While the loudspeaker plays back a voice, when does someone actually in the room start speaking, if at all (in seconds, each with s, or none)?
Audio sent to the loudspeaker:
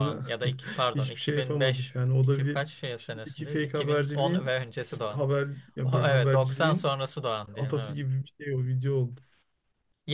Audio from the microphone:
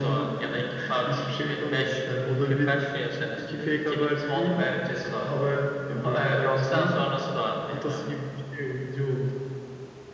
none